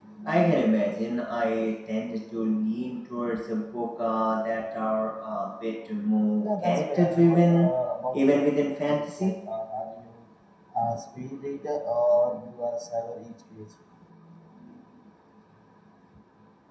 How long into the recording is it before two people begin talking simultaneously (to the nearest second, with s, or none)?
6 s